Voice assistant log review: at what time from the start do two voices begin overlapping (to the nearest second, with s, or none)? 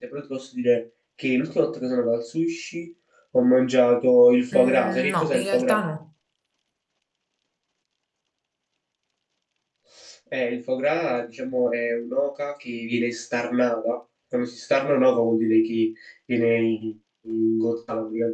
5 s